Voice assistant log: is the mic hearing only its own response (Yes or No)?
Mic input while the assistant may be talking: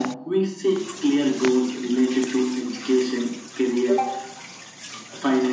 Yes